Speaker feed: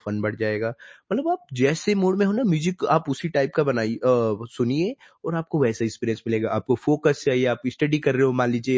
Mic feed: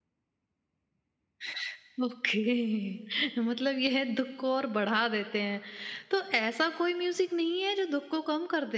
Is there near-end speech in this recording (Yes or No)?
Yes